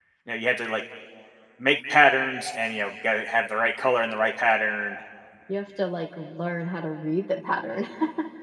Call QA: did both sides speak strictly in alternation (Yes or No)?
Yes